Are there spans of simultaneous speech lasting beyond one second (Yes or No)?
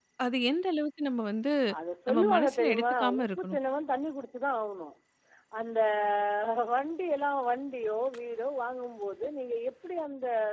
Yes